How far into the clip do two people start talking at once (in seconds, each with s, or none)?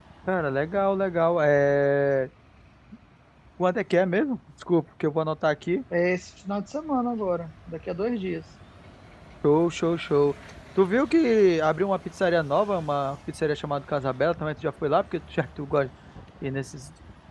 none